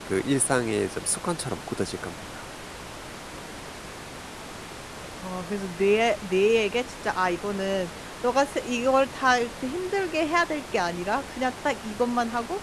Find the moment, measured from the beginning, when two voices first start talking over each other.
none

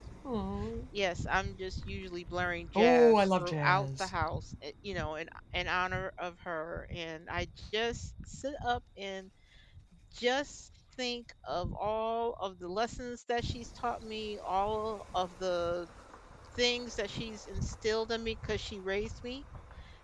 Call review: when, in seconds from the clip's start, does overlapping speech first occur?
3 s

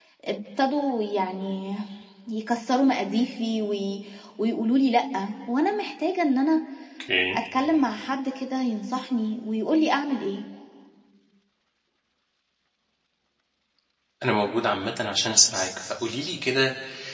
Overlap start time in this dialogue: none

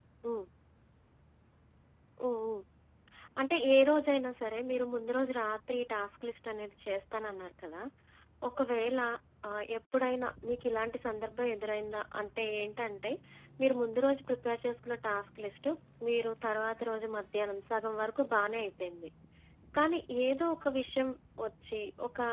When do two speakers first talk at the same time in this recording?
none

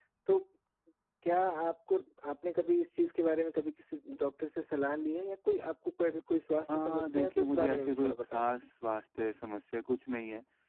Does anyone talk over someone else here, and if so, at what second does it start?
7 s

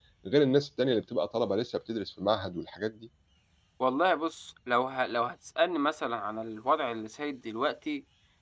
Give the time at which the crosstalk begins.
none

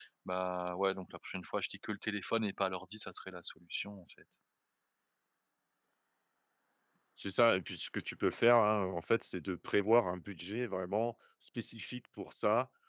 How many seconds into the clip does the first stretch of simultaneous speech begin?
none

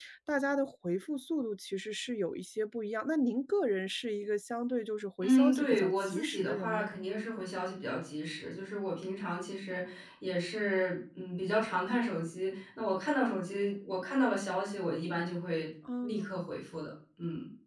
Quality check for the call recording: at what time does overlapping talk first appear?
5 s

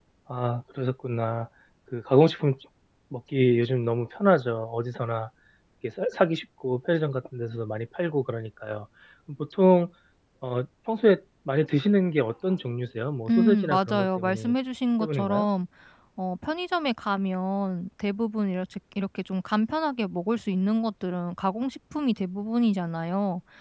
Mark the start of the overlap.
13 s

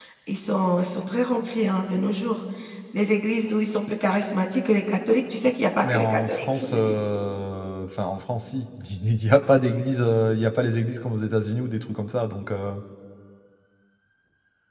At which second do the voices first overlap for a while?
6 s

